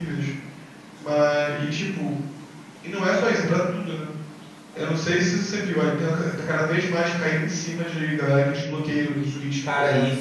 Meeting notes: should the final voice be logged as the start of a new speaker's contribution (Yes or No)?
Yes